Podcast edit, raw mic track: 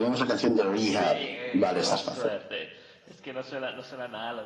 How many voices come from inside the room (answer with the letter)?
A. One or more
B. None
A